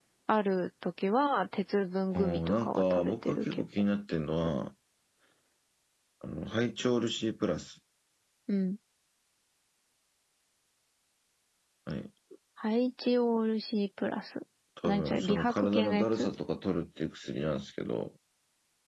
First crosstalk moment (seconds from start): 2.1 s

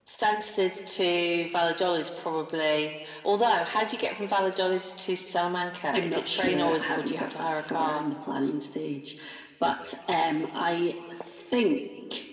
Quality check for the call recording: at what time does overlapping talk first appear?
5.9 s

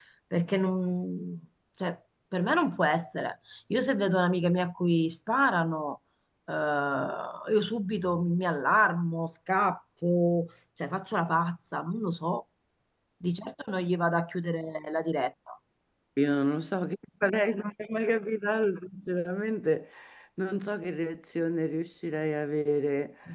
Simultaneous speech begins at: none

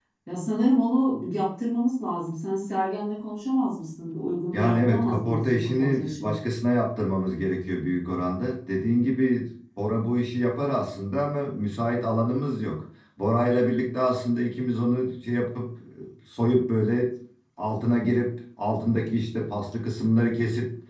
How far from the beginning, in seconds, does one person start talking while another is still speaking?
4.5 s

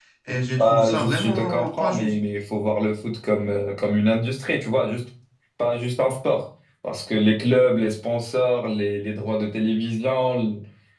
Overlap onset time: 0.6 s

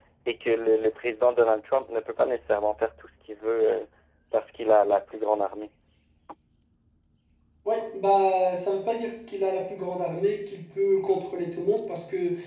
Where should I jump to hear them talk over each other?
none

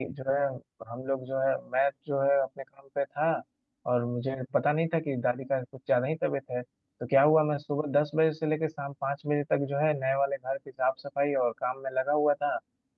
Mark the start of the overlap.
none

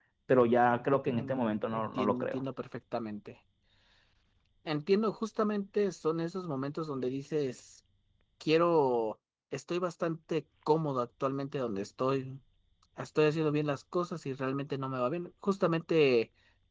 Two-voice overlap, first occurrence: 1.1 s

